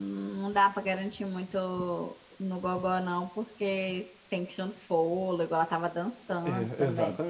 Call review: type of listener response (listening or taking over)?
taking over